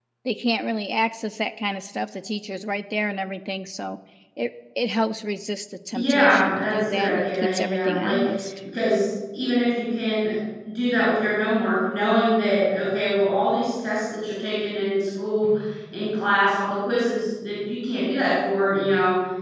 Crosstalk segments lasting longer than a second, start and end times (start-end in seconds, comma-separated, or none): 5.9-8.2